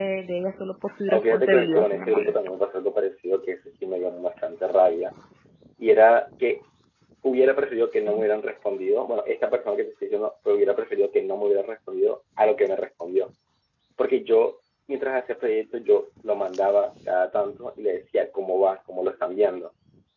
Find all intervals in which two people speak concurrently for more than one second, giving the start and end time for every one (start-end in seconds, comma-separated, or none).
1.1-2.4